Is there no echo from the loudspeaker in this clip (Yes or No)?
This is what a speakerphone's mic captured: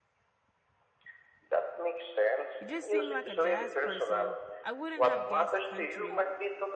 No